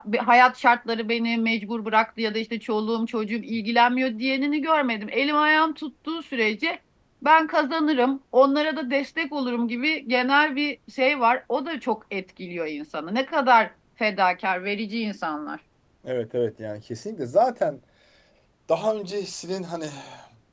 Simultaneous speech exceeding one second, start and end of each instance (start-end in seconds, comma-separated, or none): none